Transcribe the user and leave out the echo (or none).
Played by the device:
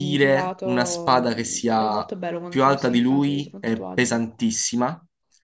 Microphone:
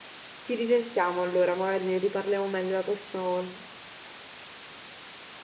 Ci risentiamo allora, magari ne riparliamo meglio la prossima volta.